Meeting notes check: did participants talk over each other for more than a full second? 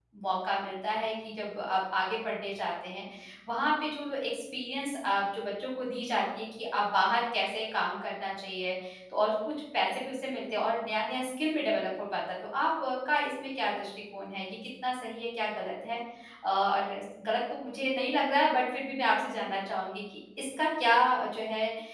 No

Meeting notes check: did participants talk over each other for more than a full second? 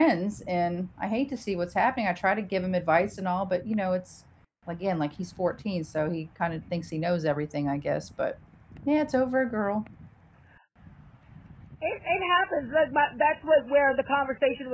No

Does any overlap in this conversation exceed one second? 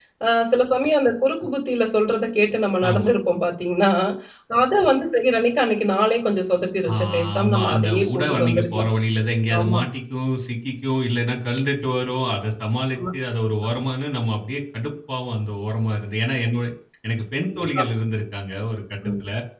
Yes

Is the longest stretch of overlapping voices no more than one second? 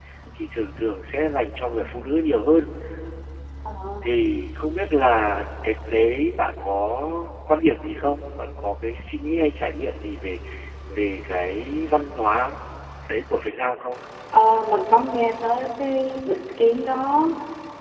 Yes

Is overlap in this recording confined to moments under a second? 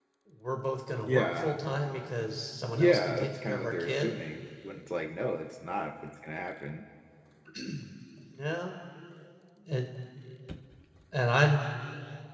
No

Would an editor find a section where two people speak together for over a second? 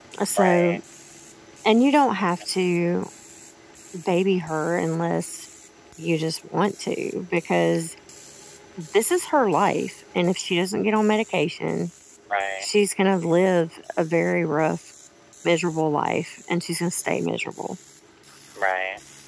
No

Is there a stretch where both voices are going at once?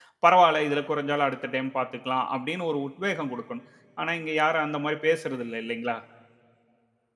No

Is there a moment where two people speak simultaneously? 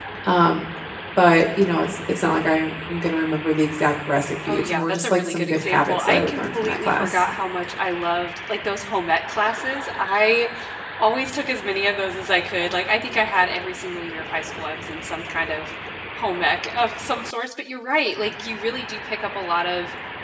Yes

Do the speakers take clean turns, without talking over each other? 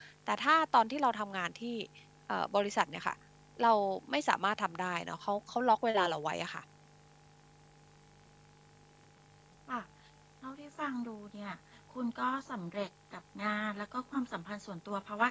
Yes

